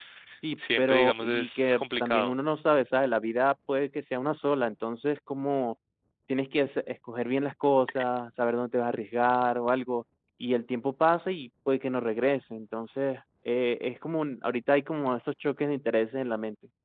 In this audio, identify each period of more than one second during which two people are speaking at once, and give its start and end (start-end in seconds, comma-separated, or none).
0.6-2.3